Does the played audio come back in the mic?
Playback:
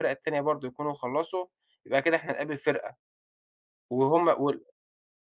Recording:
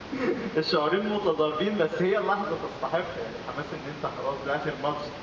No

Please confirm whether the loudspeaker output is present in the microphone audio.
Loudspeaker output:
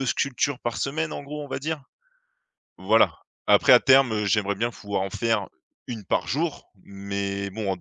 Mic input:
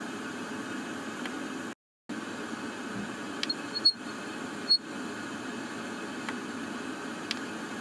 No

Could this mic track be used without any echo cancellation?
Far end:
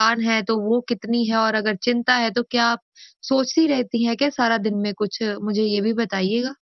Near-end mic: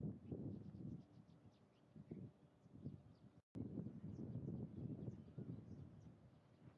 Yes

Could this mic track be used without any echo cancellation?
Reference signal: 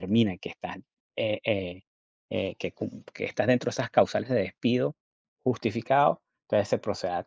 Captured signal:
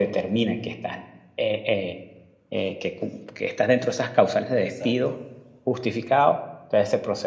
No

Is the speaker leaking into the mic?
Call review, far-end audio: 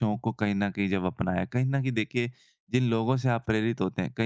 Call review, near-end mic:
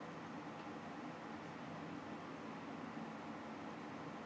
No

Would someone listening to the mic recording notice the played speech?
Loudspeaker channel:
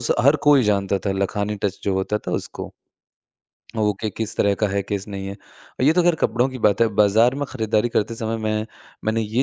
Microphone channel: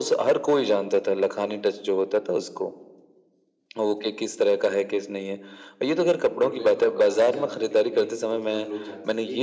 Yes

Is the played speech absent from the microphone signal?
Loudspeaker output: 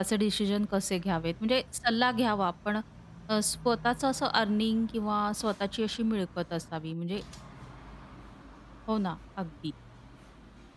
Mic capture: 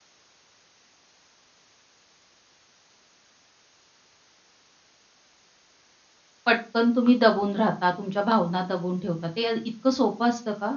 Yes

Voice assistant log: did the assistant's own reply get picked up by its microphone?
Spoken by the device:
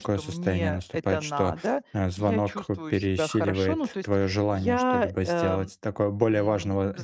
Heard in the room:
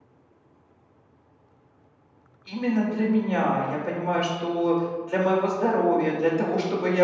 No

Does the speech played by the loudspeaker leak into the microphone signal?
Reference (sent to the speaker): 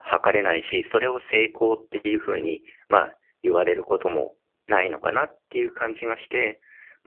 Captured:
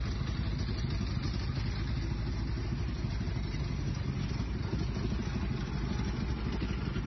No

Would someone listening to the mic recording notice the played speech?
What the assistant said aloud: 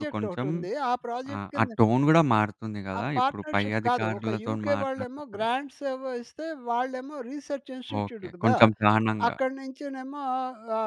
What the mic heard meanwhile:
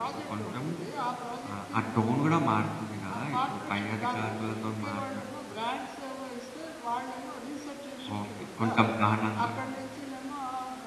Yes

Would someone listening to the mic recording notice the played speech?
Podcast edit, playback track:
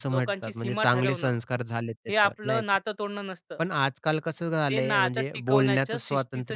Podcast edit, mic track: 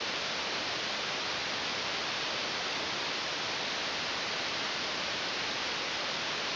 No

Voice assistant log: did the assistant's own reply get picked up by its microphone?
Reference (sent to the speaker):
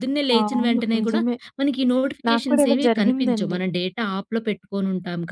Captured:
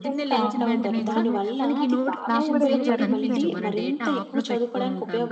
Yes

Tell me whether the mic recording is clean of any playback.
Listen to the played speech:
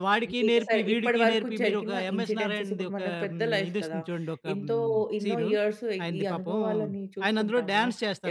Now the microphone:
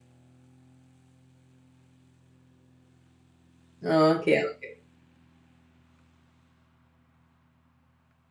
Yes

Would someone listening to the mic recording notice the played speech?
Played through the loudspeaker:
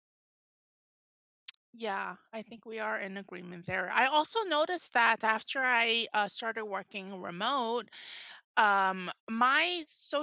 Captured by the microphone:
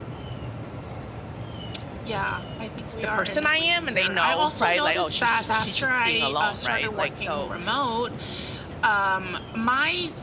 Yes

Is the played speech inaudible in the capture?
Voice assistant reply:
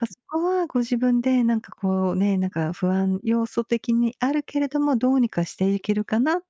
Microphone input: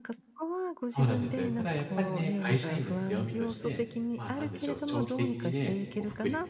No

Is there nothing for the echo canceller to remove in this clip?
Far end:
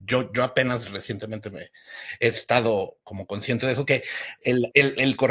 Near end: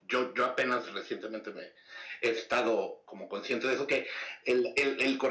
No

